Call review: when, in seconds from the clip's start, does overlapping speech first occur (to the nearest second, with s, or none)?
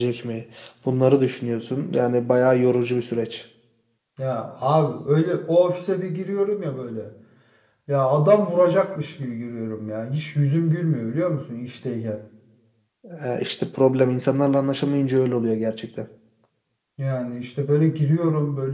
none